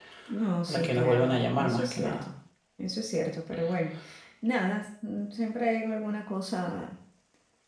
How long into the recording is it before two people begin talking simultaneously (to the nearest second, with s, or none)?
1 s